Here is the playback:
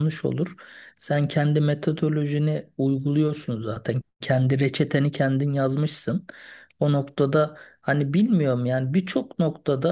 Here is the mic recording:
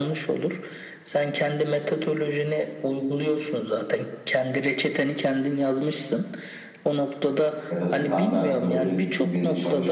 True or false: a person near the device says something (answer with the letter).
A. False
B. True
B